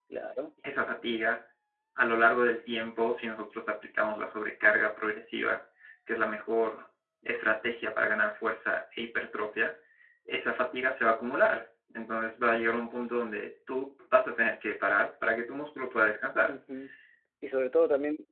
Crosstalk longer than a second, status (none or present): none